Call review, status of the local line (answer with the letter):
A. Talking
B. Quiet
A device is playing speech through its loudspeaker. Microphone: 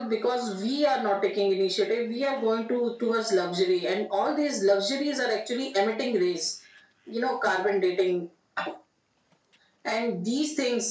B